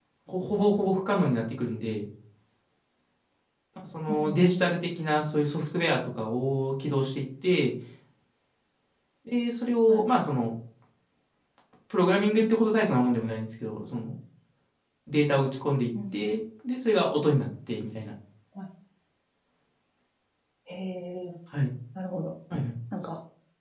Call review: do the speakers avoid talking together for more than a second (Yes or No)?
Yes